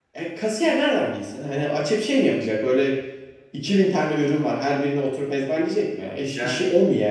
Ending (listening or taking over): listening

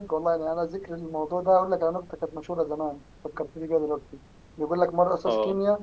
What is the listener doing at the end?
listening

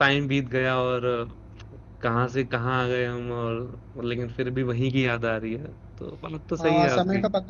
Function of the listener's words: taking over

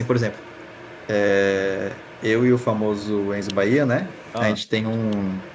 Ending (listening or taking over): listening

